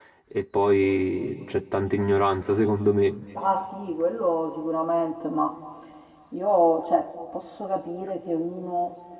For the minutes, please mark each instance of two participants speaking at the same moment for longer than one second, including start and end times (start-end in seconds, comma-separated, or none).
none